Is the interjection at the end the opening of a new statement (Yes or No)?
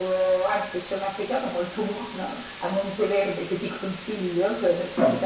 No